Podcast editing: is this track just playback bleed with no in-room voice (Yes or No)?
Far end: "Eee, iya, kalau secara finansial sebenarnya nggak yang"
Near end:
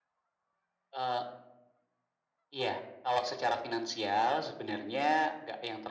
Yes